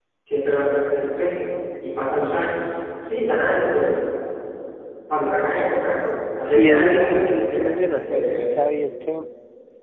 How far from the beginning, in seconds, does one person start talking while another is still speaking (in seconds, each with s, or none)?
6.4 s